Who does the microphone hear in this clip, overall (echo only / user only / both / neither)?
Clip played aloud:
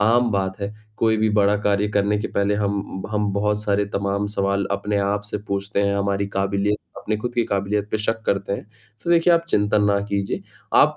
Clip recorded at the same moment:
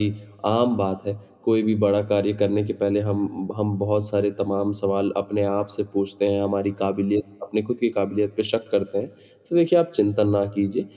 echo only